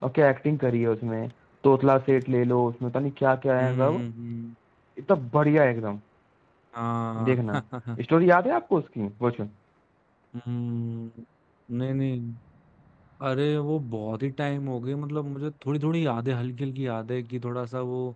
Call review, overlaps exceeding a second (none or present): none